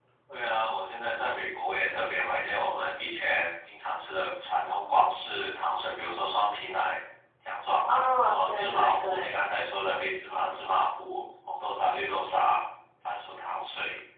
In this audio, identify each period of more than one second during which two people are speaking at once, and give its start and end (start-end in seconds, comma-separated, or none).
7.9-9.4